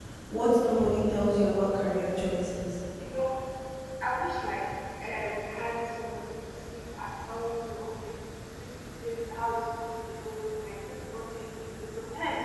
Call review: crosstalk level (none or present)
none